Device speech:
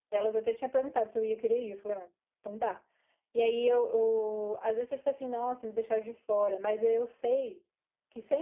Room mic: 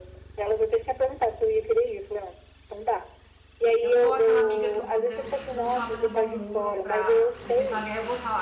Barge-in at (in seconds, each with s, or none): 3.8 s